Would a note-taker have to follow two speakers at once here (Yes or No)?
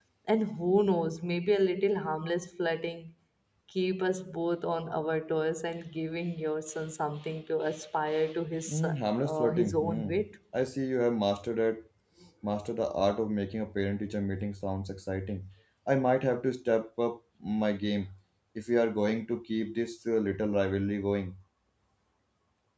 Yes